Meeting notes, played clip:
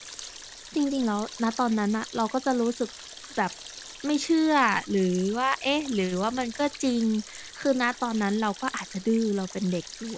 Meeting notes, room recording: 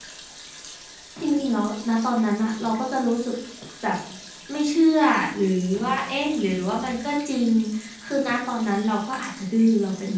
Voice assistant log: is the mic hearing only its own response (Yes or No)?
Yes